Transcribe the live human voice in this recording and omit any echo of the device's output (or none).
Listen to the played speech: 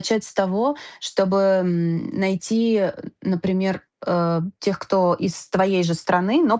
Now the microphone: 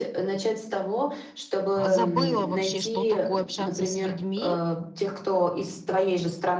а, забыла вообще, что такое общаться с людьми,